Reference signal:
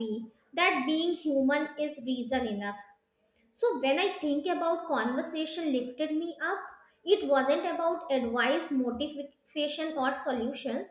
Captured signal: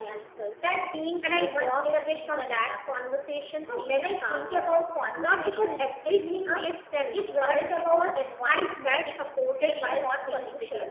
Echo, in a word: present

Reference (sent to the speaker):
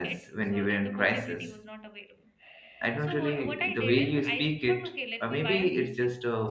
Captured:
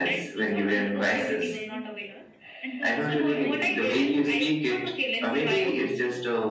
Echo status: present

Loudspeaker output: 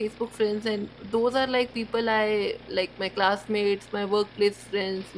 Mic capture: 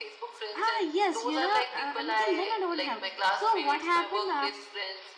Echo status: present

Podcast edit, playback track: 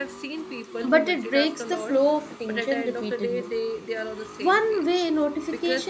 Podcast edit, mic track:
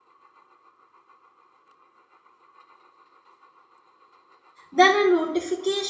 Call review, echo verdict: none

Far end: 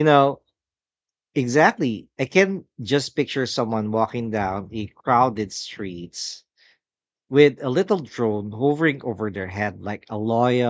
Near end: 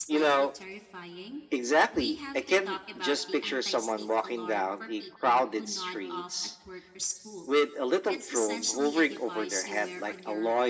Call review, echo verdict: present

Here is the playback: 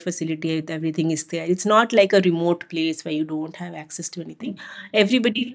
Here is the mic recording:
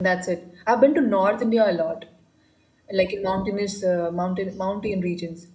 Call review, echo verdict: none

